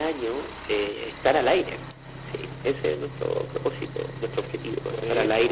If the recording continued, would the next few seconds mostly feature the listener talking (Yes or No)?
No